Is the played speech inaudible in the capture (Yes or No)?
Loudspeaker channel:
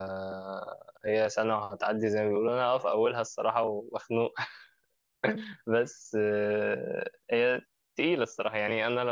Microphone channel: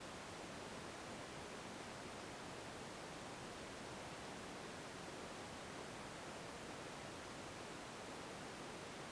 Yes